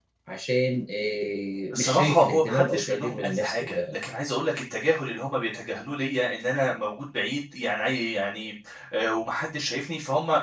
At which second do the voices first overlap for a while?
2 s

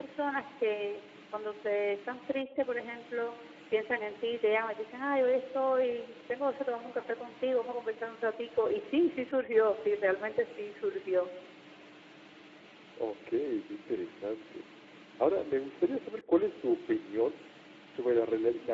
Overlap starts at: none

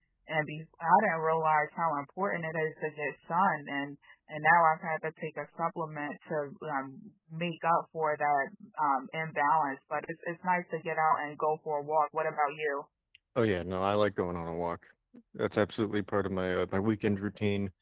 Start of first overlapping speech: none

